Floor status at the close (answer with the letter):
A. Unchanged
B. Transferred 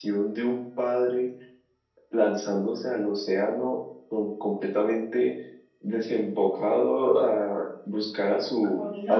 B